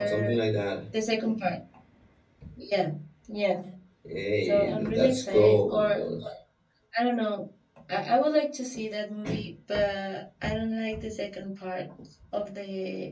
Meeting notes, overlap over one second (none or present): present